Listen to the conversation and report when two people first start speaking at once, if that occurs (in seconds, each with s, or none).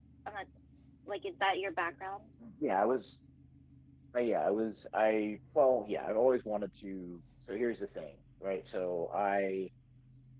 none